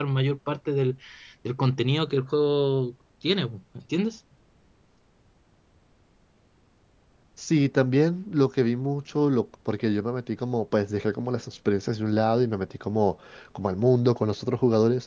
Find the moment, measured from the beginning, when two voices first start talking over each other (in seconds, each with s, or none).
none